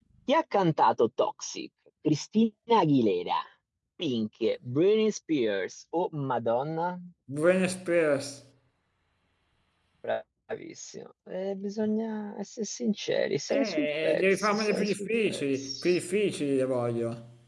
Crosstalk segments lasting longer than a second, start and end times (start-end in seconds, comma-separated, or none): 13.5-15.9